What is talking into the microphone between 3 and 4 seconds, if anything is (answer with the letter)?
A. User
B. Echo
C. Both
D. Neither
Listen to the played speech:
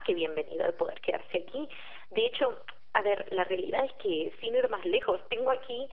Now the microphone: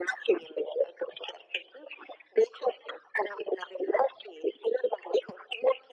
B